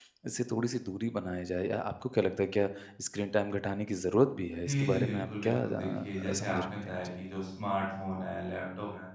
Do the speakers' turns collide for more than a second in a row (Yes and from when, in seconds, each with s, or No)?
Yes, from 4.7 s